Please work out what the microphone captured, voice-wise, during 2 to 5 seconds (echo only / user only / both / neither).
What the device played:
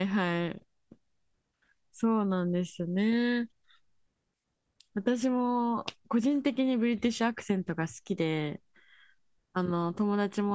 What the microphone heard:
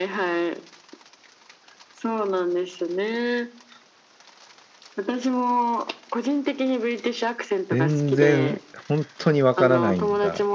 echo only